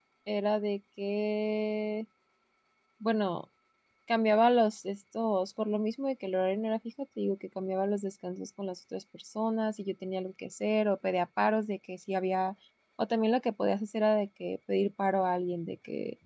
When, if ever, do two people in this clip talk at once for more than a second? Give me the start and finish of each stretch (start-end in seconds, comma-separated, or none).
none